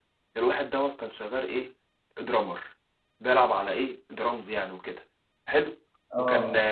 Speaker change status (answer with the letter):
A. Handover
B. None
B